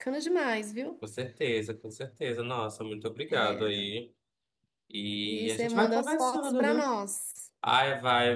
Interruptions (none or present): present